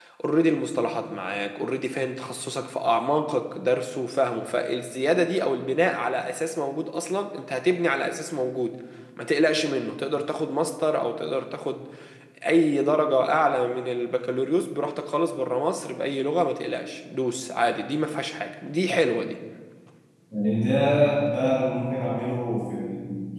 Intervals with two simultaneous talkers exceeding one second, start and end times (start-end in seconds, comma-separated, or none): none